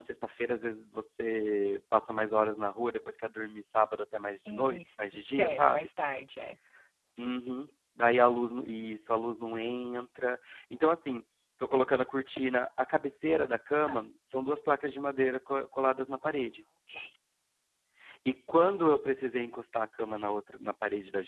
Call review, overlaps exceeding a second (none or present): present